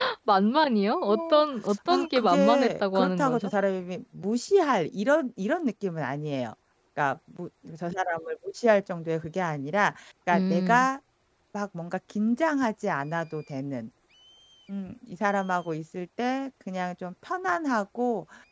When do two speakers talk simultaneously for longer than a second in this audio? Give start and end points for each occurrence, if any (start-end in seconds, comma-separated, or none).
1.9-3.5